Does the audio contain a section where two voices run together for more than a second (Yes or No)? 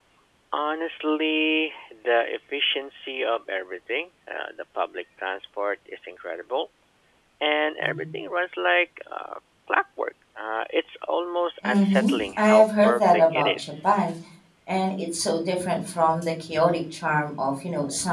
Yes